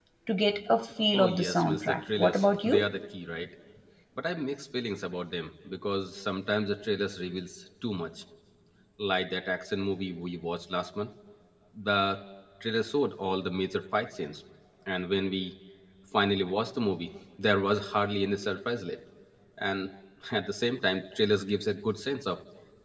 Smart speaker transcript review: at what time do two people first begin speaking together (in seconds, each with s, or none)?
1.1 s